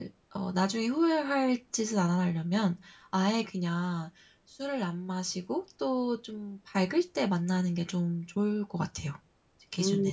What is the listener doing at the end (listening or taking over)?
taking over